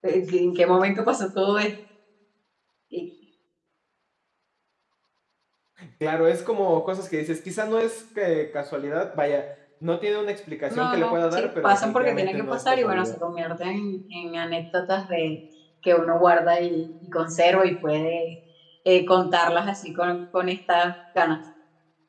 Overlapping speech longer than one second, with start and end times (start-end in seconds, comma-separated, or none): 10.7-13.2